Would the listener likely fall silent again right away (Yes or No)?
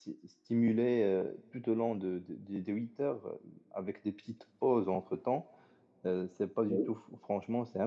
Yes